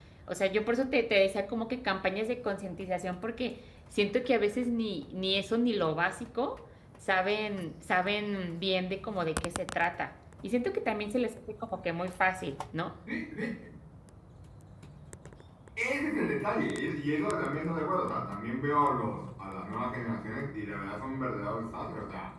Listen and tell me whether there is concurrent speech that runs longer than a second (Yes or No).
No